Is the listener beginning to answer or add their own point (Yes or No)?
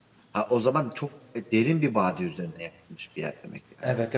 Yes